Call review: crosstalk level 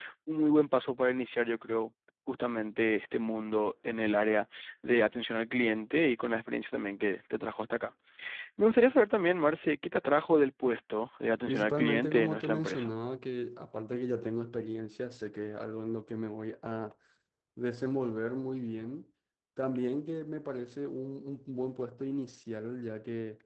present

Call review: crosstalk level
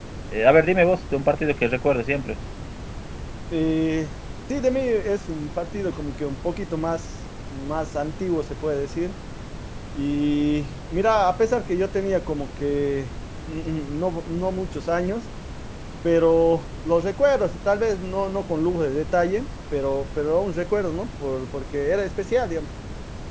none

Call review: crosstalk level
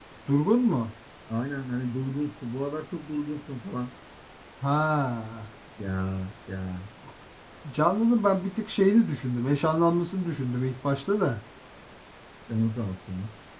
none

